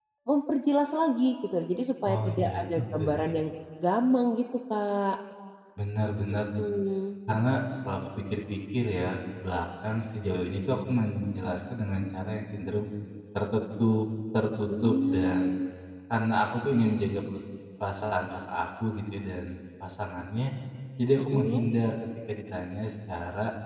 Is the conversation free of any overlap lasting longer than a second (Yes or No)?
No